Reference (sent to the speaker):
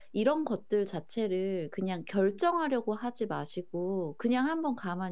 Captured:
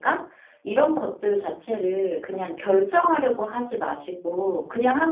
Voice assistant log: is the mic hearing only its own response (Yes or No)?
Yes